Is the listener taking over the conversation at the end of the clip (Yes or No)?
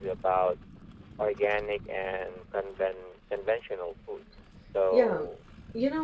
Yes